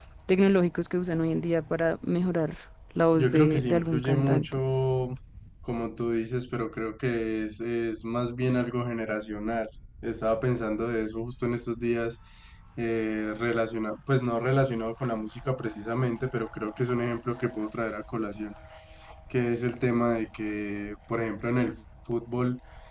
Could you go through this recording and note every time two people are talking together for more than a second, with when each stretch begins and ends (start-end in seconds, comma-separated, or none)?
3.1-4.5